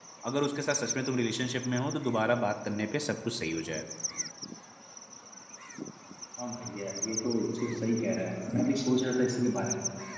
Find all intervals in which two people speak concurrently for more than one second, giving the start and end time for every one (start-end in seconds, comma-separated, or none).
none